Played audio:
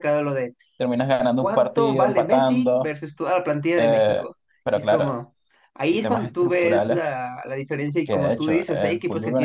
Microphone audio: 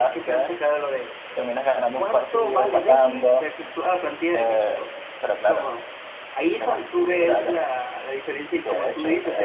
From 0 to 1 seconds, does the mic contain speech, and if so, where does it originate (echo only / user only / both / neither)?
echo only